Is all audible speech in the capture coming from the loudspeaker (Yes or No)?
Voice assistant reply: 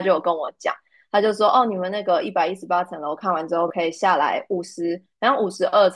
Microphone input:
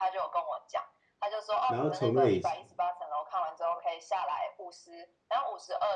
No